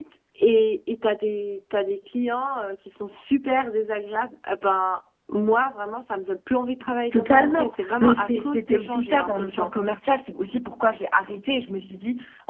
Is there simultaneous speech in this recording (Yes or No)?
Yes